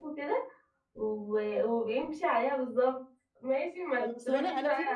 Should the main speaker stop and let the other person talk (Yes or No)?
Yes